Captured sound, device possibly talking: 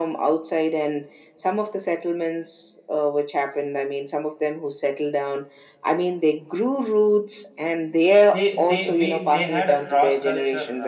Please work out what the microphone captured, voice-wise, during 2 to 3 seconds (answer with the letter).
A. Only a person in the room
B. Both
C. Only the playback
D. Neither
C